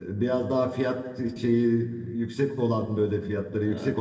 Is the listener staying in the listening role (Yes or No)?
Yes